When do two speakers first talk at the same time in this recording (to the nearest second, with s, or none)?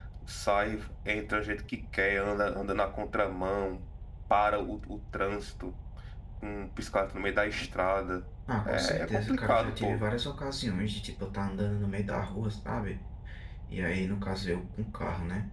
9 s